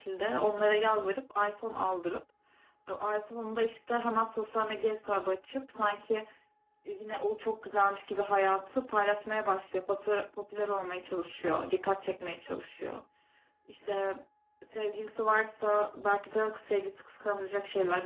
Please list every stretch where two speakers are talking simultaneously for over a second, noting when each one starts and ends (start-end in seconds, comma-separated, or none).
none